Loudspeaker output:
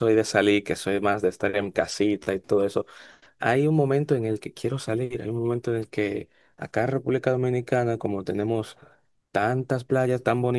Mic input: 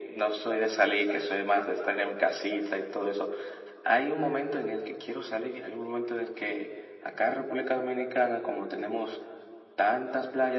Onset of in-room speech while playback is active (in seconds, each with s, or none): none